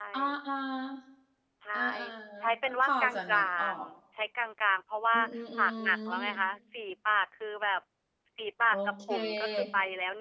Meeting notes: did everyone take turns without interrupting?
No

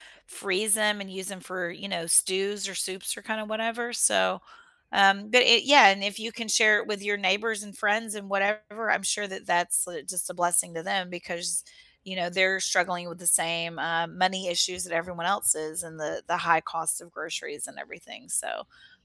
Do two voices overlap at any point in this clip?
No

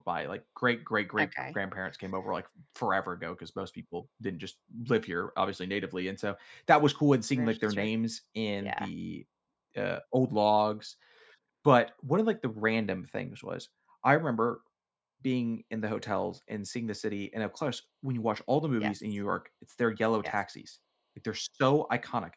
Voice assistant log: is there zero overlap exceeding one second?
Yes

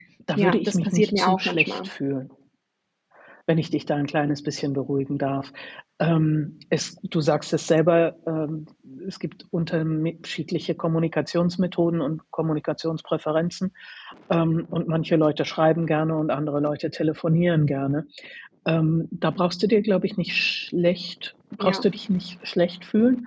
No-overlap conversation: No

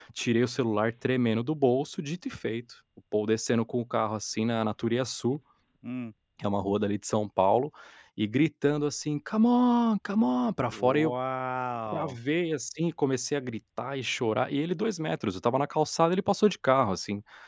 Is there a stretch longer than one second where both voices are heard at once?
No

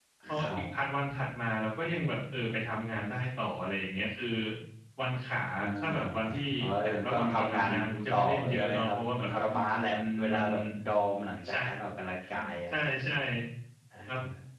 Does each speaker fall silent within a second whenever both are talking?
No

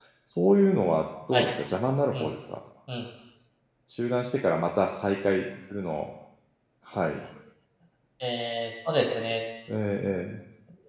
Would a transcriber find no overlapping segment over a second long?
Yes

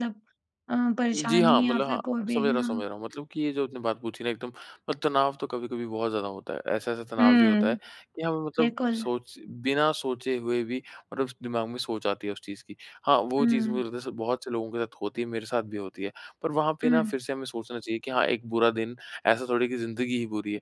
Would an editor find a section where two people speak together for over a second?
Yes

